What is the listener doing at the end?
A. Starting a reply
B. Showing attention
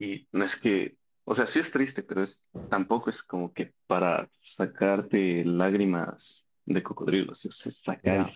A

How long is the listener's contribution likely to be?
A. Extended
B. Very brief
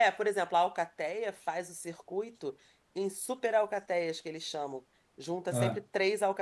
B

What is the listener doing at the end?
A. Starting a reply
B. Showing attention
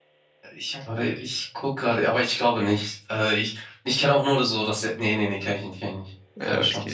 A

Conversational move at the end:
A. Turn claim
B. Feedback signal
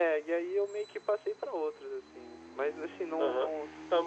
A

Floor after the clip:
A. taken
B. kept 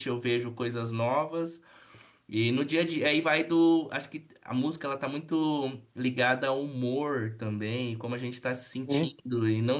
B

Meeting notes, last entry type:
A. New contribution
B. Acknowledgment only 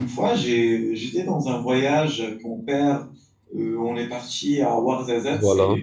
B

